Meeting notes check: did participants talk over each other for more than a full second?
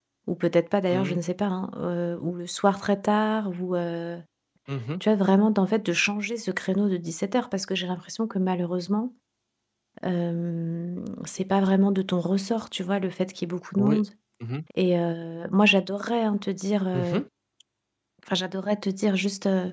No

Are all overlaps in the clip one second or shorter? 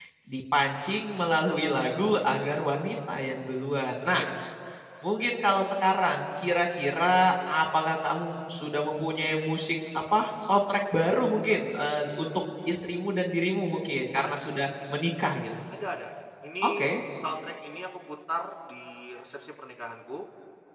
Yes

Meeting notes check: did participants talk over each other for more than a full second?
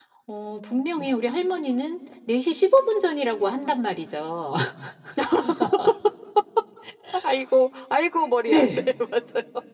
No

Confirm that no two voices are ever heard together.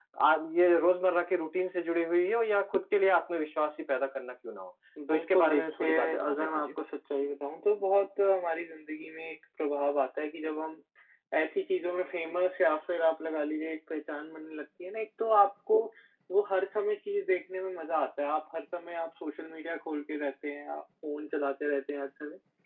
No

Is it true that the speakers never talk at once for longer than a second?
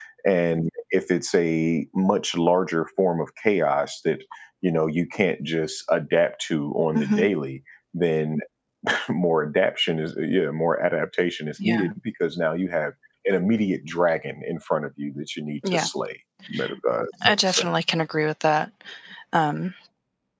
Yes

